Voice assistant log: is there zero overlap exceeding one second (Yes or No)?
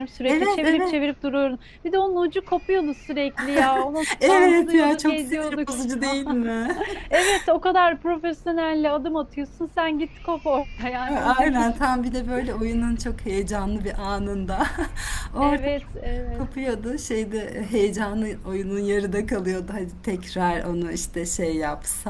No